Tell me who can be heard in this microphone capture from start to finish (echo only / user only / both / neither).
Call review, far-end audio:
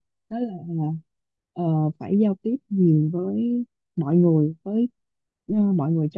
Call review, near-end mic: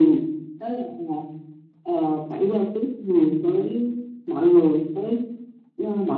echo only